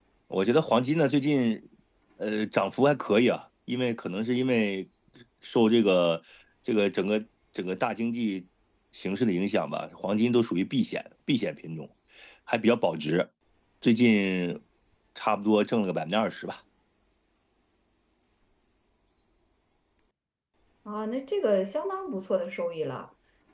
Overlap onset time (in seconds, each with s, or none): none